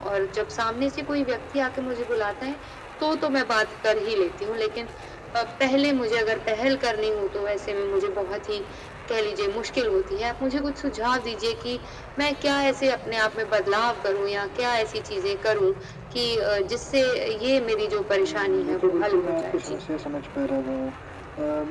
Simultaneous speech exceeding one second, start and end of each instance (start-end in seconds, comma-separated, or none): 18.2-19.8